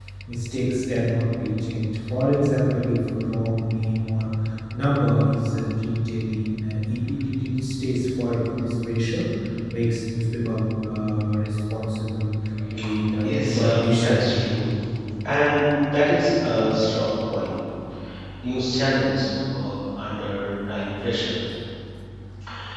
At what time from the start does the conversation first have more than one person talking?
13.2 s

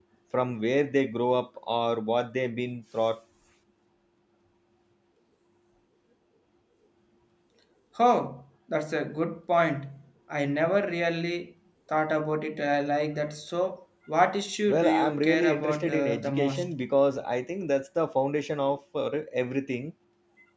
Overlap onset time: 14.7 s

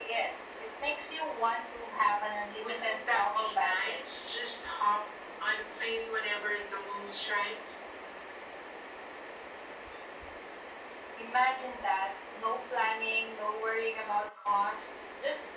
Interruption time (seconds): 2.5 s

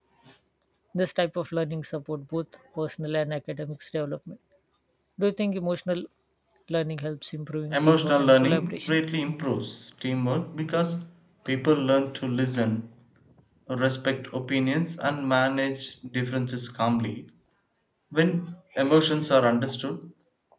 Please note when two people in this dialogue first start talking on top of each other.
7.7 s

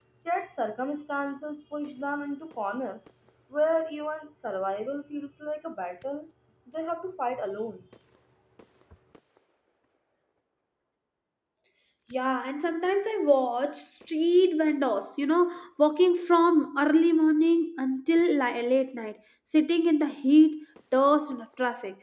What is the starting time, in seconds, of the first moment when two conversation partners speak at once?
none

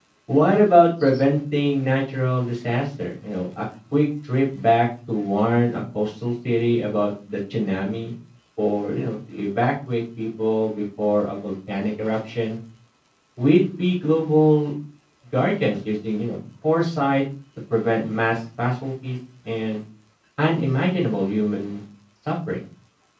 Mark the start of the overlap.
none

